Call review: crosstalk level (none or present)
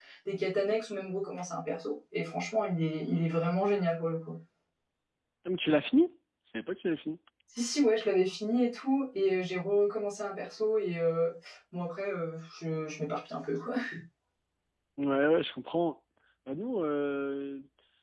none